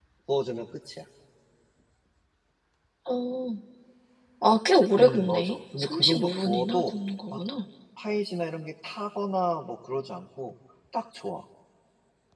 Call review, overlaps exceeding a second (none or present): present